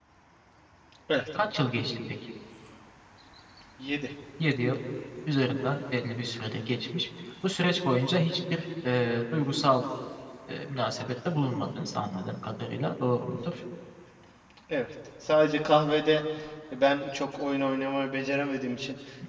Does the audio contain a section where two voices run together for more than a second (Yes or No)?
No